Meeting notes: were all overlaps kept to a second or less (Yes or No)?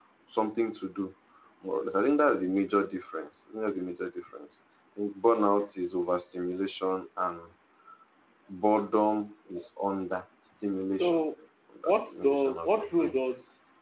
No